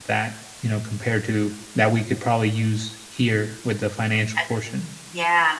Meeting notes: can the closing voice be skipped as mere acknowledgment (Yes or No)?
No